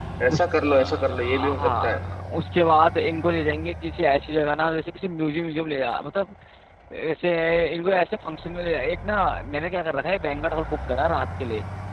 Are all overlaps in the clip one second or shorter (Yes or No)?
No